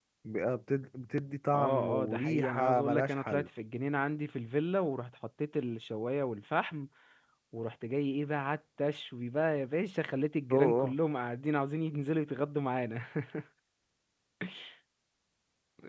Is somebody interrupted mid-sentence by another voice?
Yes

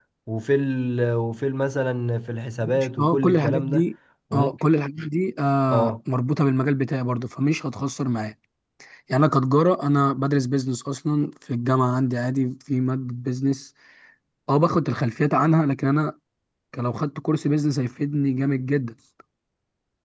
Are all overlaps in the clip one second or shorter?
No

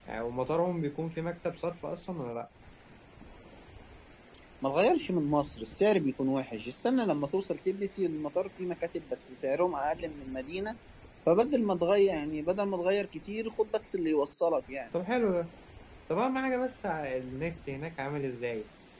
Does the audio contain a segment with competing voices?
No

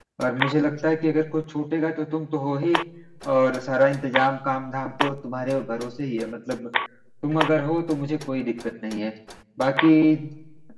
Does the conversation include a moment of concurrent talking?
No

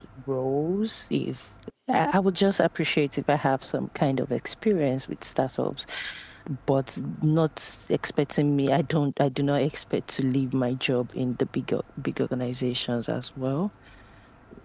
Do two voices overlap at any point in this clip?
No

